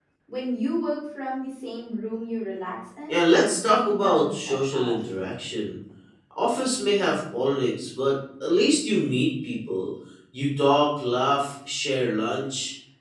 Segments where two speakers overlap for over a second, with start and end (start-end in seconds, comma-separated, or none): 3.1-4.9